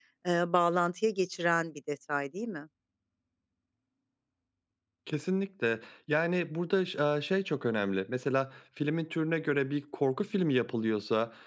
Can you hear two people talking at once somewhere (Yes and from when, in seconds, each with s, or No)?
No